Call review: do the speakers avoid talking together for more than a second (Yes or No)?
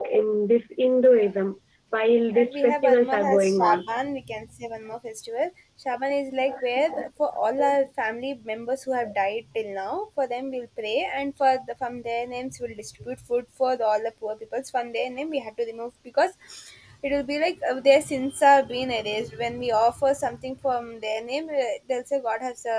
No